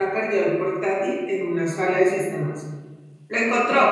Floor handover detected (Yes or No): No